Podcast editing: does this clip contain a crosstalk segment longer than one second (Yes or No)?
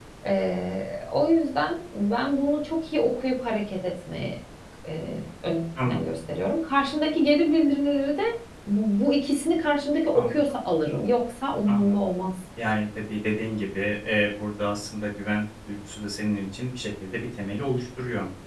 No